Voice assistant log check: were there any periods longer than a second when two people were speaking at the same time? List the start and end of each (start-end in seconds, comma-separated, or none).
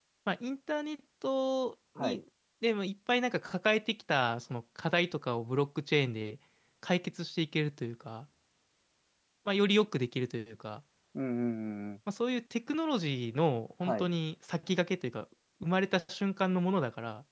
none